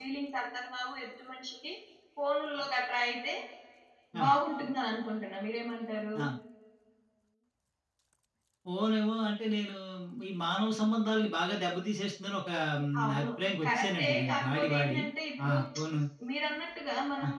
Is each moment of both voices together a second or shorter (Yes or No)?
No